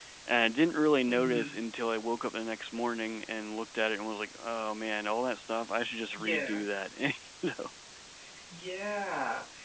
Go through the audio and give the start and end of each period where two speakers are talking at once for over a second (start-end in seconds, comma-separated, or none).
none